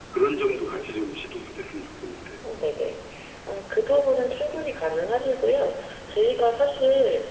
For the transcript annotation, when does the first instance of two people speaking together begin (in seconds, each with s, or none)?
none